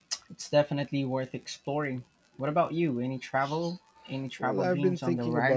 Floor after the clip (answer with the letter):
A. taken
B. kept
A